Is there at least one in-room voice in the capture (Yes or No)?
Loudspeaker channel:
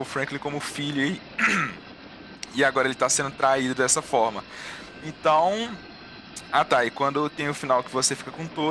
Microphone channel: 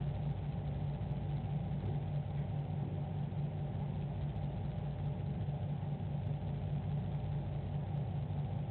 No